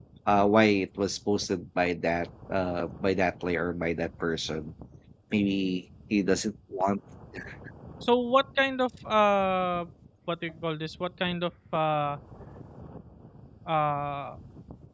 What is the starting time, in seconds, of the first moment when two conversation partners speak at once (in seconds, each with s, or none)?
none